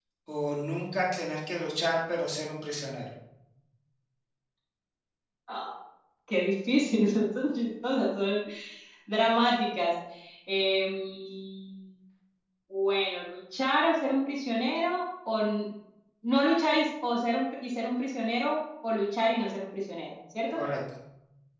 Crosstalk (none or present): none